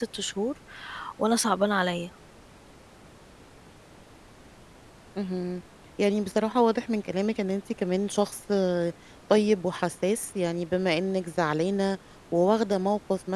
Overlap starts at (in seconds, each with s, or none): none